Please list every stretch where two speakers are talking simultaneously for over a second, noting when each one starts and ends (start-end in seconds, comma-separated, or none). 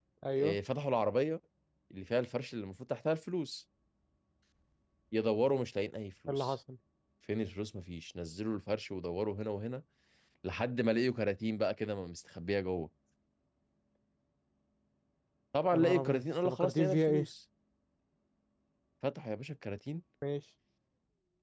15.7-17.3